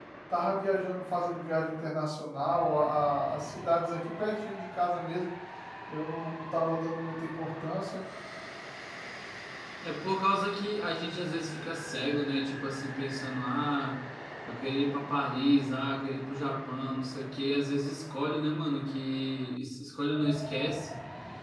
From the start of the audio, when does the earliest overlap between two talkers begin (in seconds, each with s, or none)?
none